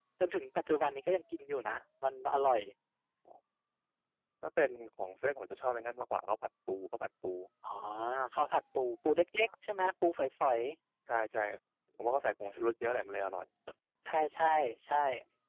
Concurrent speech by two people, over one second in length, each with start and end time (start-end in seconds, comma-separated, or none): none